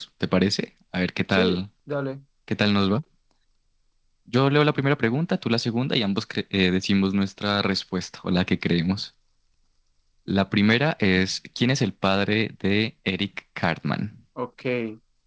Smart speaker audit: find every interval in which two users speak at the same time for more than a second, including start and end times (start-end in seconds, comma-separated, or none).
none